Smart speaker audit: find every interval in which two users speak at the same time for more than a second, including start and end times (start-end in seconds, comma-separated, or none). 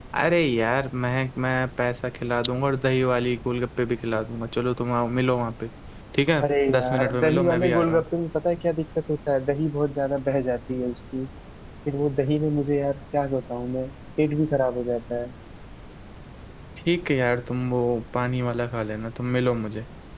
6.4-8.0